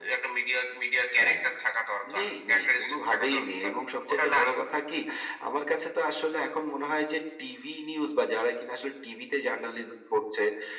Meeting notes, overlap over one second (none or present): present